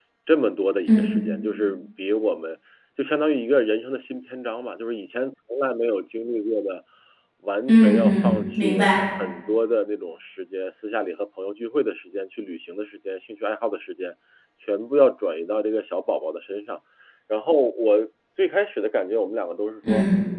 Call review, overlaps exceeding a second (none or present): present